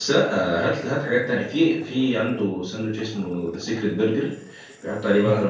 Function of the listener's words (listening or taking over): listening